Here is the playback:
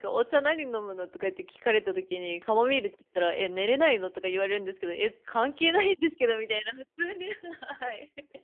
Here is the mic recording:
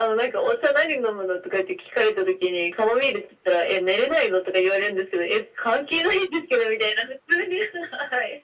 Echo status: present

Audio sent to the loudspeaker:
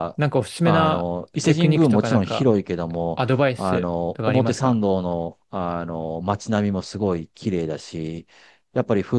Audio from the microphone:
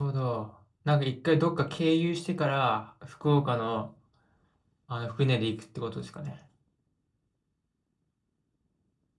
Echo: none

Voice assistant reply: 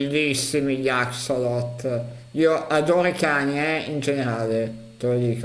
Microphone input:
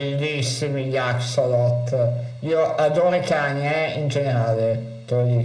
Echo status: present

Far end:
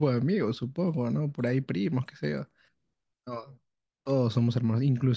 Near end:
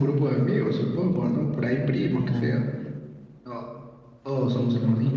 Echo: present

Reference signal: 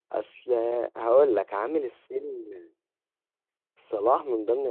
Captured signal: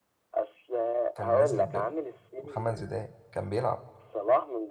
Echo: present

